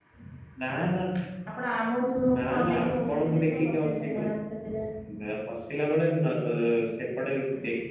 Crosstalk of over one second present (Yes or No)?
Yes